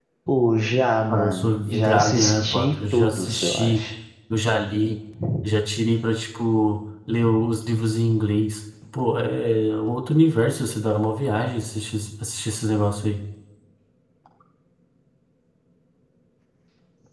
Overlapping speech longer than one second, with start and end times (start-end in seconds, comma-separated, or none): 1.1-3.8